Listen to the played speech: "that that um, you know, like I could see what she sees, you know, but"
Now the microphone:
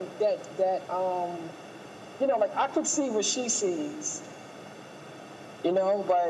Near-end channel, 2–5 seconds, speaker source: echo only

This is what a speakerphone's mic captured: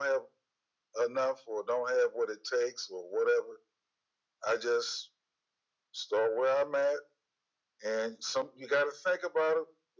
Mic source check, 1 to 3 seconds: echo only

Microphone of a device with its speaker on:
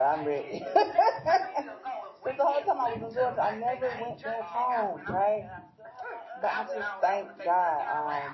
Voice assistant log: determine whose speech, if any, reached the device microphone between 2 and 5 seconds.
both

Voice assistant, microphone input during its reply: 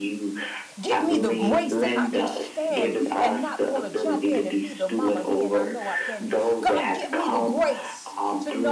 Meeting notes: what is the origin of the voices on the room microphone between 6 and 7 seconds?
both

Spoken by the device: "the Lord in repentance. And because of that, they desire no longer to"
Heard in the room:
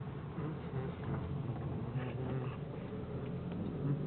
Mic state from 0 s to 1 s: neither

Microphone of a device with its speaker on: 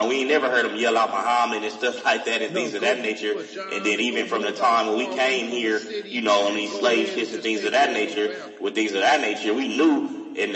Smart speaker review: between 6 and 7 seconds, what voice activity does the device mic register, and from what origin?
both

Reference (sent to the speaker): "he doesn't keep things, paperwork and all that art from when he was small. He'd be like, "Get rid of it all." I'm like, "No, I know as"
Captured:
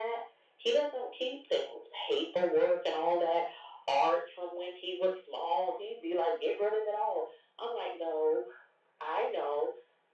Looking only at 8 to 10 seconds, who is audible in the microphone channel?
echo only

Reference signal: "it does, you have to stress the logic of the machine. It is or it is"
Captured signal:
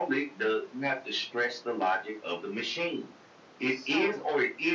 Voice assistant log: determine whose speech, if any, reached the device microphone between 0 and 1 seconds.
echo only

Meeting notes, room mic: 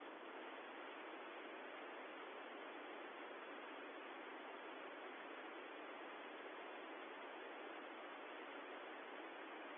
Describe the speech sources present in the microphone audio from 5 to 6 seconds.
neither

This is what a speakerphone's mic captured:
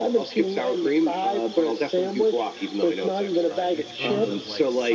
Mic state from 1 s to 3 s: echo only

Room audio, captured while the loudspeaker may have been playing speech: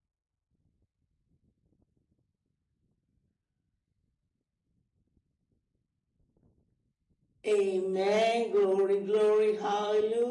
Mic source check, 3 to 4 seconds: neither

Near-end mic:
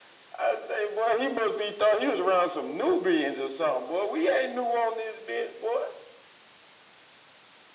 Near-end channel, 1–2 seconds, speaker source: echo only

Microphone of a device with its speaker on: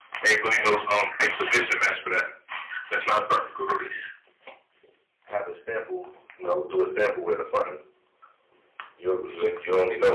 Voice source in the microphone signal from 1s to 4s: echo only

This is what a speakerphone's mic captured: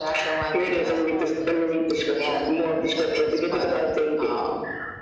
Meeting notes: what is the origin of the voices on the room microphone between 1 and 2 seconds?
both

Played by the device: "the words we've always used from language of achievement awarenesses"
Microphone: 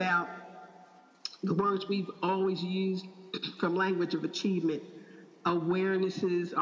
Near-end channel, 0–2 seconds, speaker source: echo only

